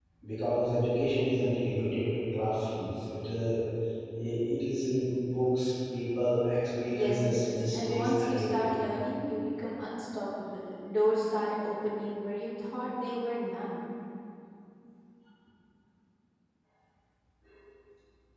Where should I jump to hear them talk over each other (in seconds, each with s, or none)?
6.9 s